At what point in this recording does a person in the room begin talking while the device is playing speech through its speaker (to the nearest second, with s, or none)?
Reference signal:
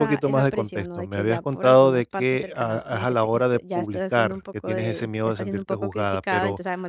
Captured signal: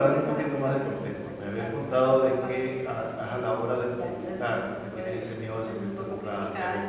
none